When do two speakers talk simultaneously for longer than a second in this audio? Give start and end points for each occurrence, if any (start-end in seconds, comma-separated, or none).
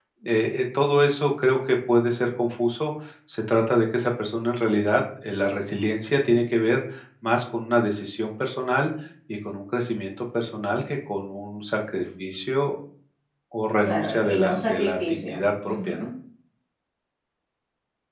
13.8-16.1